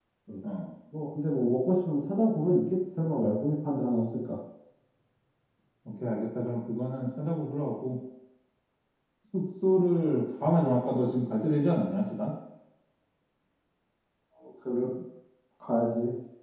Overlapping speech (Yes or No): No